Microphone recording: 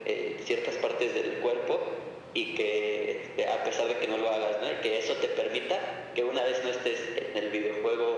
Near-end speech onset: none

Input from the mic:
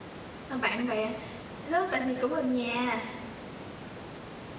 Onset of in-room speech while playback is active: 0.4 s

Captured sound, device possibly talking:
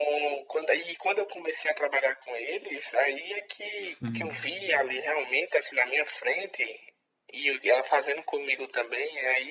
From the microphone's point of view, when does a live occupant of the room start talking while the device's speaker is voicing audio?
3.8 s

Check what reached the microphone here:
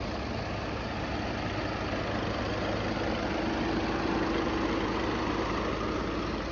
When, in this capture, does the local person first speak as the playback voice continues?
none

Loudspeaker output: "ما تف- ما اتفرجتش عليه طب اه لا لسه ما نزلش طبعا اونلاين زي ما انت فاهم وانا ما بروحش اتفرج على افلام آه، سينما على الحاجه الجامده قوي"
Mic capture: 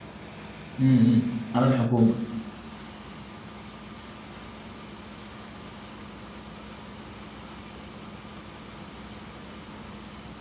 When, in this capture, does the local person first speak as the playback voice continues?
0.8 s

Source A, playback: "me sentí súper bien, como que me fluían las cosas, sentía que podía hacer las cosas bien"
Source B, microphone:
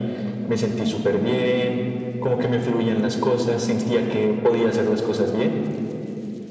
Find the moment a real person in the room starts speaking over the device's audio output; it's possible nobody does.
none

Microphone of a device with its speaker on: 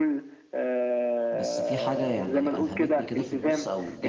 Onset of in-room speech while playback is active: 1.3 s

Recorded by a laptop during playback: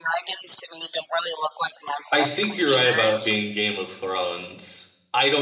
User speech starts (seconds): 2.1 s

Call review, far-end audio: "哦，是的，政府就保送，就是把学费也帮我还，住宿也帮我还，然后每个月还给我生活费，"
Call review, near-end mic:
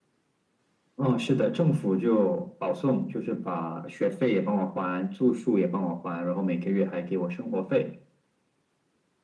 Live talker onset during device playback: none

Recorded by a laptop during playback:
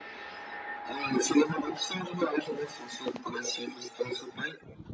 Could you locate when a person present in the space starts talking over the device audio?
none

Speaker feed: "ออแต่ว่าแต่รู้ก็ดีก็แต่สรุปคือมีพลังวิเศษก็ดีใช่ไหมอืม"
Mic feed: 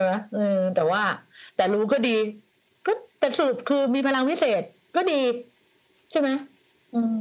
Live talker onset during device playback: none

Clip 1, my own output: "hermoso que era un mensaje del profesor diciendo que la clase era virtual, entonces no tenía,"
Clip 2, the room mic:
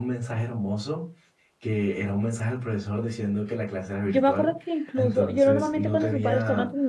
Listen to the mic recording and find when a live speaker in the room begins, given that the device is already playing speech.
4.0 s

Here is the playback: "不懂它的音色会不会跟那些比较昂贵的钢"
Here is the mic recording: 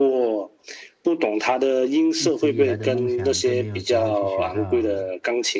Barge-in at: 2.1 s

